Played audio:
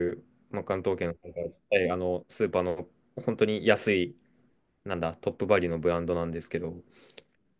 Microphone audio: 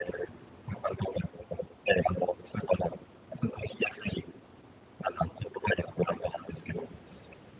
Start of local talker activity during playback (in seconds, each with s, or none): none